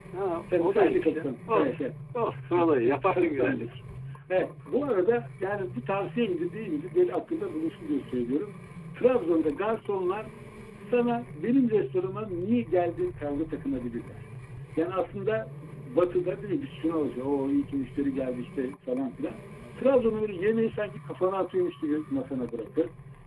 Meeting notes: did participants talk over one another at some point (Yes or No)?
Yes